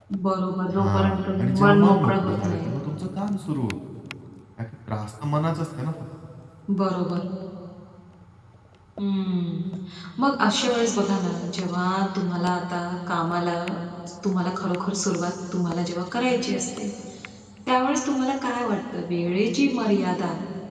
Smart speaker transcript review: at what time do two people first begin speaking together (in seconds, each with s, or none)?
0.7 s